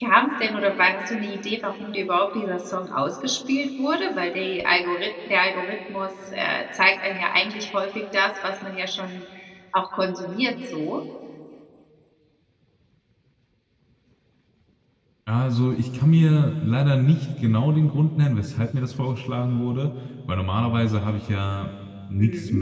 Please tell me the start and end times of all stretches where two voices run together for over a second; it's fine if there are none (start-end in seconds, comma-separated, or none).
none